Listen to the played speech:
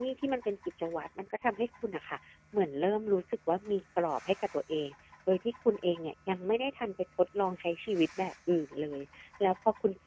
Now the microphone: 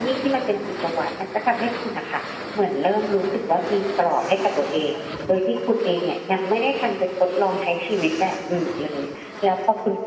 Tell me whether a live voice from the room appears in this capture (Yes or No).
No